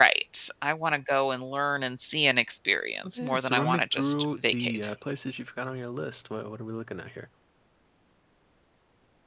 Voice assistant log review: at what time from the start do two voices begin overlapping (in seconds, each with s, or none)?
3.0 s